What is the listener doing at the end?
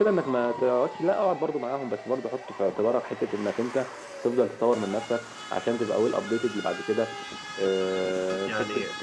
listening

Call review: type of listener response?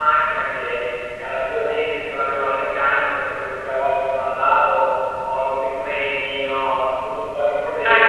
taking over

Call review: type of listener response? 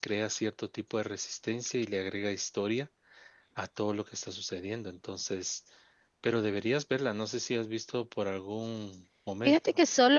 taking over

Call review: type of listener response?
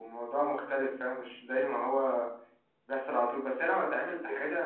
listening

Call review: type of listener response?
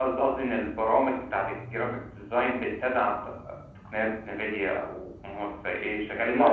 taking over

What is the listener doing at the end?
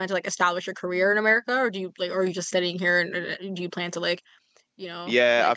taking over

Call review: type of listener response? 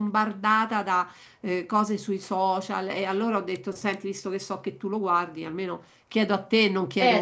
taking over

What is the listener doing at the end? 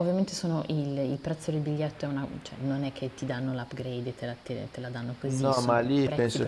taking over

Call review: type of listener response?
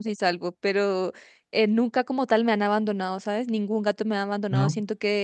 listening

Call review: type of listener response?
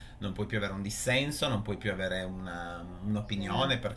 listening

